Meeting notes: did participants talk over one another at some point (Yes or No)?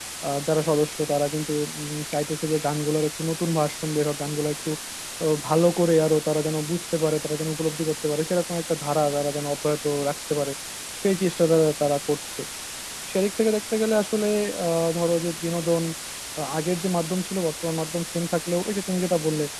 No